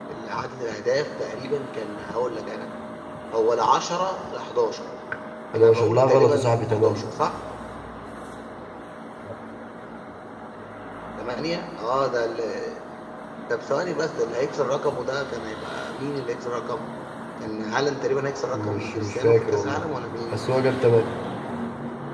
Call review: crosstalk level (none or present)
present